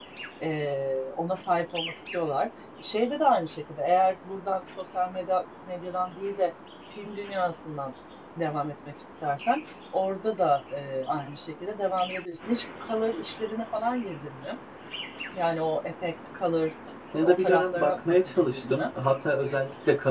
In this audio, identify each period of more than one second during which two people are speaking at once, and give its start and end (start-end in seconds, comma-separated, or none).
17.1-18.9